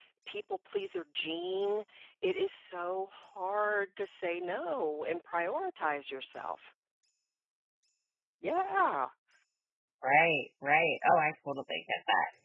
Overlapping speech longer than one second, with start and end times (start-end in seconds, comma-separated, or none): none